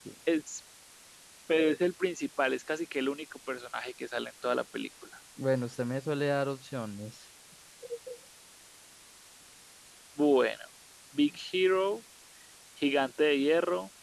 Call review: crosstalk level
none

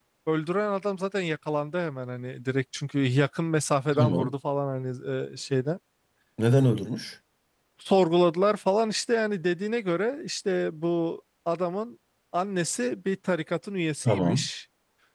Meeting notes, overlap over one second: none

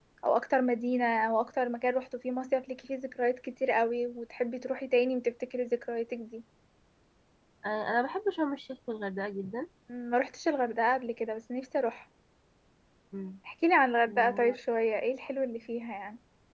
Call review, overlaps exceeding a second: none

